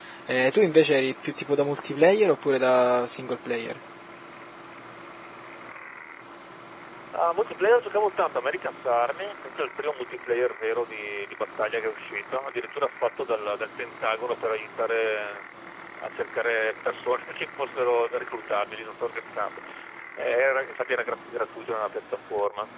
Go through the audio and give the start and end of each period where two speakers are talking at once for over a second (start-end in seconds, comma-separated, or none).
none